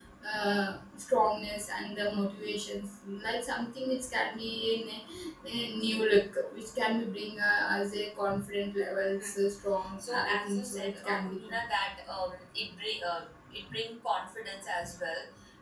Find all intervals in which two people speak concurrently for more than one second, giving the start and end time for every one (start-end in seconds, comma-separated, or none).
10.1-11.6